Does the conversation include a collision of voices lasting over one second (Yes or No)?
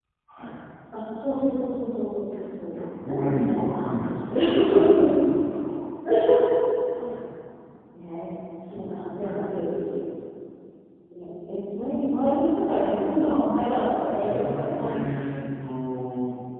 Yes